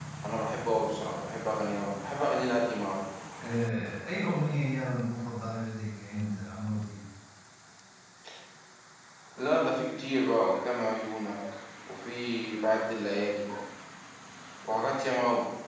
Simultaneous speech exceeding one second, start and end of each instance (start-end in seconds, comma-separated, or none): none